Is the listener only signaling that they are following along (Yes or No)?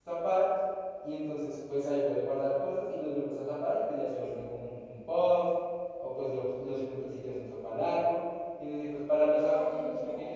No